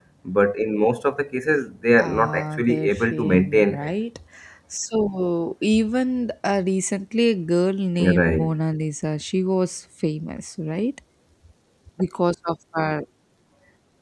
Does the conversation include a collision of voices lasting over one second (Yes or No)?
Yes